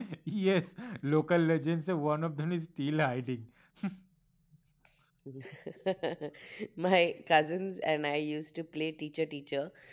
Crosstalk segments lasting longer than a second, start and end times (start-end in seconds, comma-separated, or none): none